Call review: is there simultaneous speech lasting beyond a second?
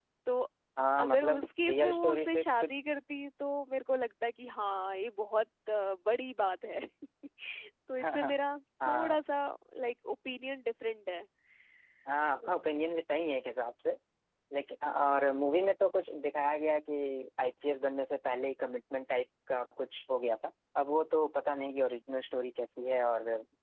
Yes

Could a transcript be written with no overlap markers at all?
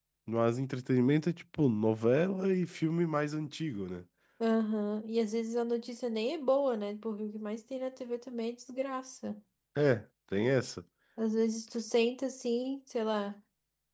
Yes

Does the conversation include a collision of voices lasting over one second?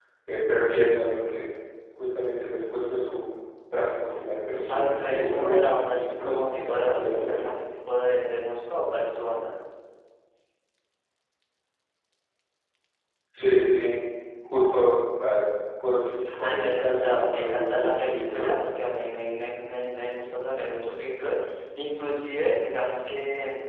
Yes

